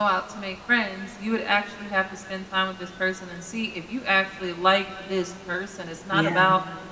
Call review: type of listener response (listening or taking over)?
listening